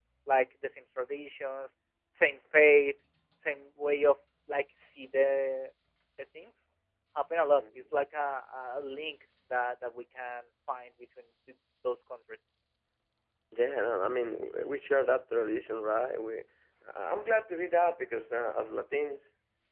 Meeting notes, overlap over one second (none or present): none